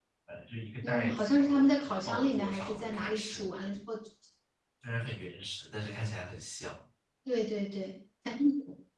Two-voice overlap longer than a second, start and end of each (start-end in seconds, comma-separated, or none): 0.8-3.5